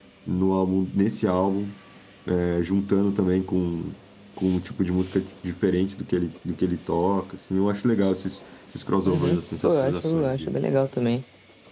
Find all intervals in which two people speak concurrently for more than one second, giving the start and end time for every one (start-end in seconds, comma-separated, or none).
9.0-10.5